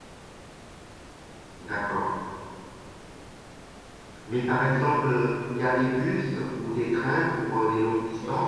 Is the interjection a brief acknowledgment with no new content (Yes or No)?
No